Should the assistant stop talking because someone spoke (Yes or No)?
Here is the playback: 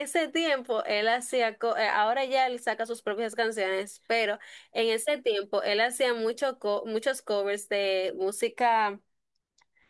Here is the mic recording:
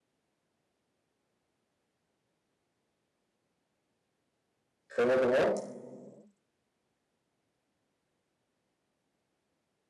Yes